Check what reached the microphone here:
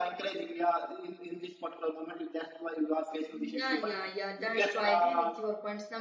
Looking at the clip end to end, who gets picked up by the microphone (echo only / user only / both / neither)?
both